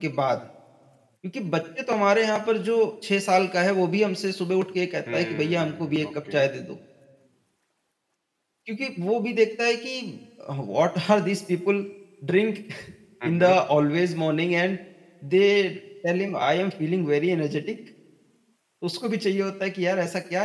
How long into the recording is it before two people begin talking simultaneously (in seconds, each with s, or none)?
5.1 s